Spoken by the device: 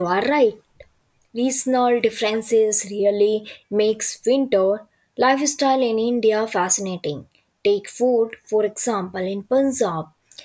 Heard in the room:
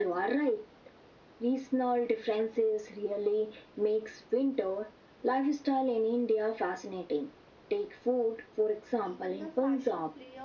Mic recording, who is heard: both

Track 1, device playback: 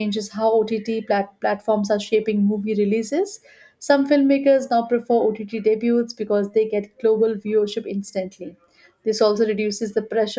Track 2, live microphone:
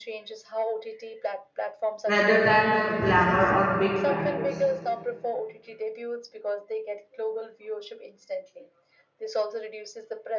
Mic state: both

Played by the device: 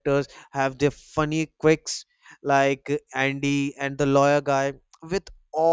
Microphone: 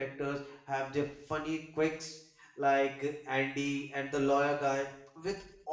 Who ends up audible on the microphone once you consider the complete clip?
echo only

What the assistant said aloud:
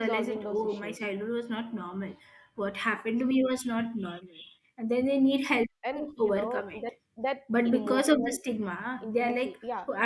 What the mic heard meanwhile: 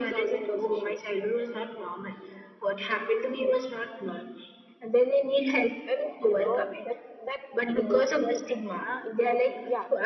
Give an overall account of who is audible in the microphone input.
echo only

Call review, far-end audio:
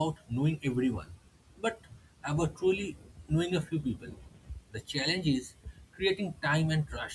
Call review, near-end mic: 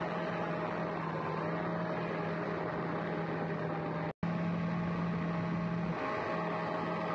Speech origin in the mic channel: neither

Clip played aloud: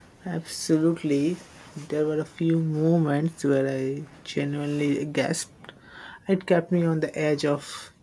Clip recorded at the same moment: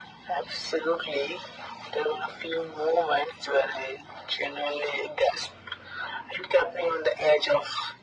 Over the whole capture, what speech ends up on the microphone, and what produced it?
echo only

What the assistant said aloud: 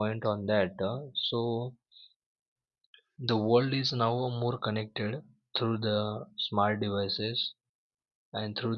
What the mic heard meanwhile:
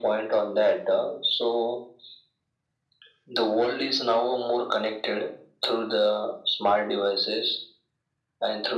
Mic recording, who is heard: echo only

